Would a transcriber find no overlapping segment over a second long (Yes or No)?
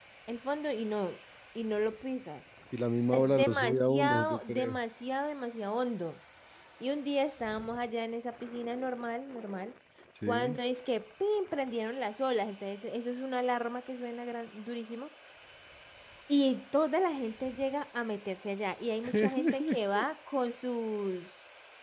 No